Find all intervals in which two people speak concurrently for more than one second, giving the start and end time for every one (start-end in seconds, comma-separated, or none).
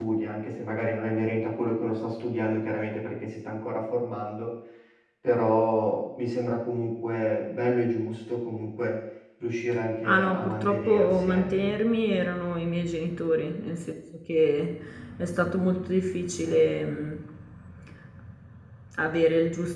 10.1-11.5